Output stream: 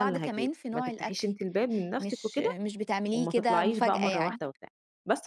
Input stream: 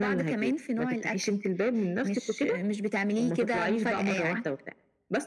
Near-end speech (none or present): none